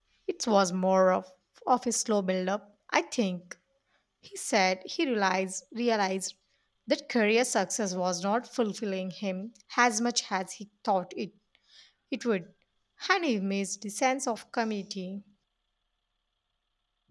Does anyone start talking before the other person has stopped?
No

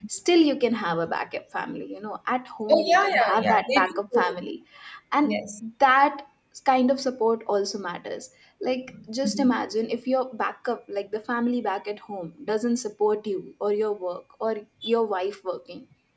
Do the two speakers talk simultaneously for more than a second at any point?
Yes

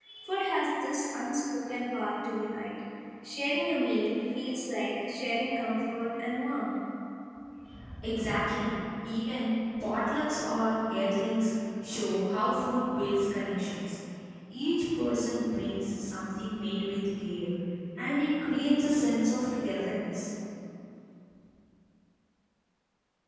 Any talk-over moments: No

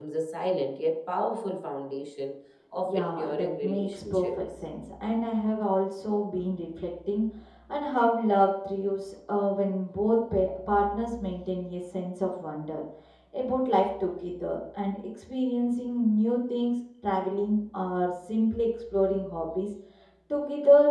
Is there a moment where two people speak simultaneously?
Yes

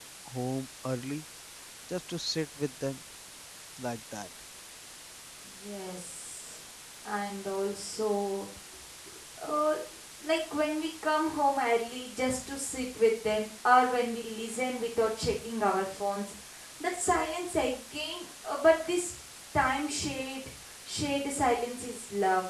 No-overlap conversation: Yes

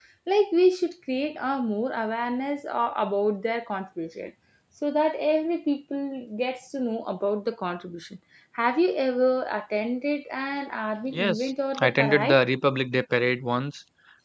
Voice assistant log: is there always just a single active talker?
No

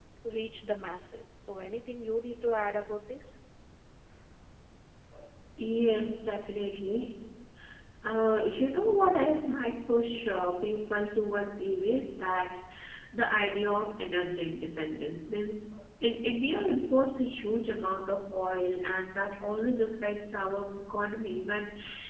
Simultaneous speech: No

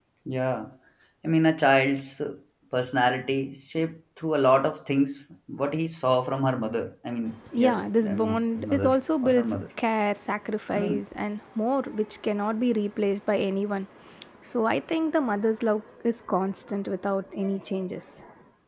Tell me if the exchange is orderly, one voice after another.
No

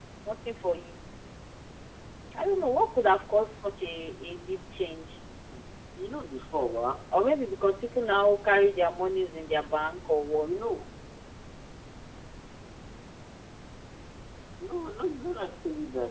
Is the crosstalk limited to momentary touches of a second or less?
Yes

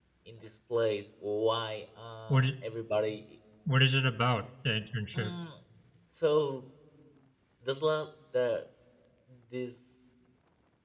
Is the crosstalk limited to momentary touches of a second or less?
Yes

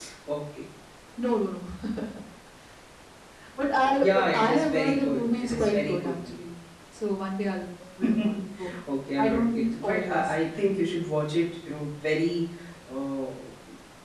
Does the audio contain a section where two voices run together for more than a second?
Yes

